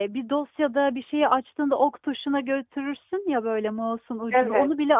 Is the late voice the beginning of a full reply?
No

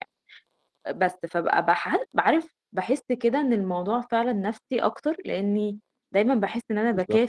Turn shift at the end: No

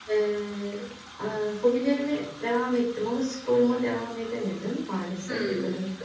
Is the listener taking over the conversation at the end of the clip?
No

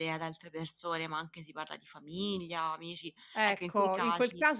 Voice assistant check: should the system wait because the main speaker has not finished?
No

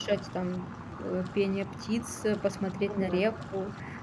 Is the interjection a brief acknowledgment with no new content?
Yes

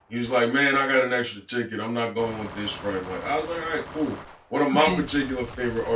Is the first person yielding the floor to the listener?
No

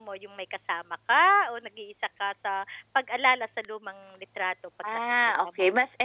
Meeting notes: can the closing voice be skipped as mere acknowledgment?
No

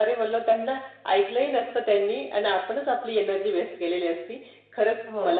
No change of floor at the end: Yes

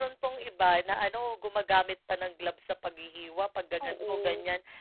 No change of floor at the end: Yes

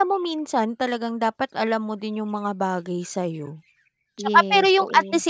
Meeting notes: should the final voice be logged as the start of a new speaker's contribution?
No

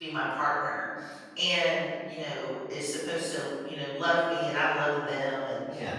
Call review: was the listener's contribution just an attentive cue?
Yes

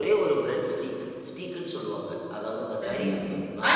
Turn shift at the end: Yes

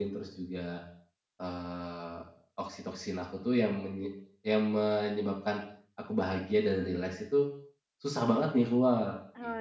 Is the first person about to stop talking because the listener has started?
Yes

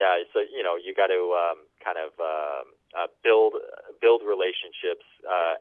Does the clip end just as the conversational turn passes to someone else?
No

